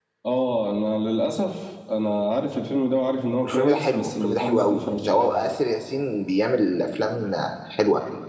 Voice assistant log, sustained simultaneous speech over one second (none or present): present